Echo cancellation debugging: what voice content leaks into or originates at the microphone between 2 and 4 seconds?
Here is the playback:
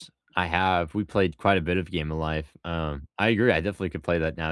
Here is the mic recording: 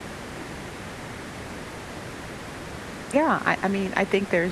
user only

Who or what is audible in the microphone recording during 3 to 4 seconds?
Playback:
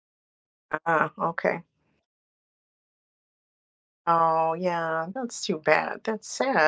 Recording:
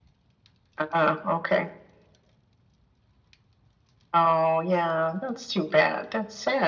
neither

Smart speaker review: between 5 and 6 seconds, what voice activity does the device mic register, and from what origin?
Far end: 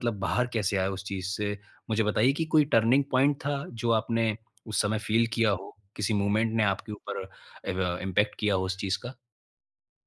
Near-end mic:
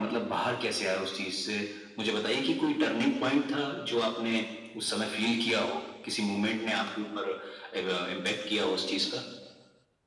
echo only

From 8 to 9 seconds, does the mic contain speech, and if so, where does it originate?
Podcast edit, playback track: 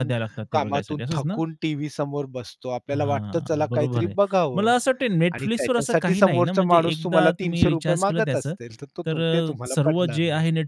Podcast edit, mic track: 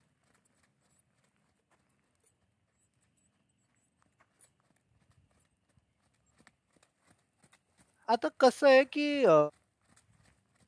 user only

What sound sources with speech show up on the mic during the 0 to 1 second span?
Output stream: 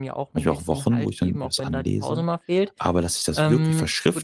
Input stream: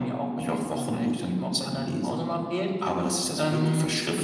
echo only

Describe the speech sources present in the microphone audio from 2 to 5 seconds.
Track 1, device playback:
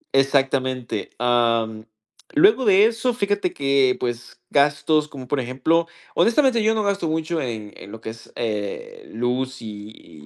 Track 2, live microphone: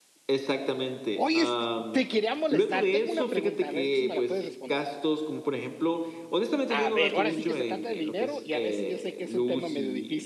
both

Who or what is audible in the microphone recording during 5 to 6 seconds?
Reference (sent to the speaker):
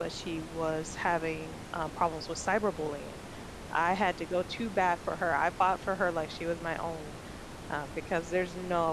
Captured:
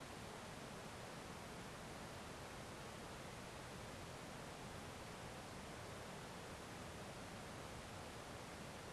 neither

